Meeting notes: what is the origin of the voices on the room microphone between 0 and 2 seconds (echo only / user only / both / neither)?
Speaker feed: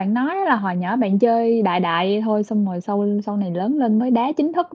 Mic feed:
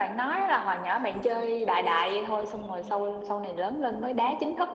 echo only